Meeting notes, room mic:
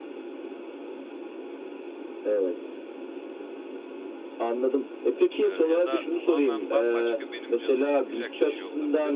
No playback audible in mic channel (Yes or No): No